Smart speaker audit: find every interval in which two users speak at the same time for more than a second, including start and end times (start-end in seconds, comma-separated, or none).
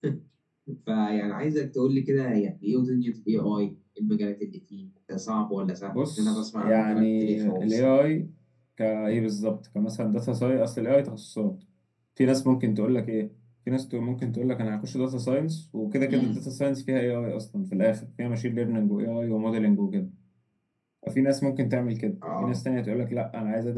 5.9-8.0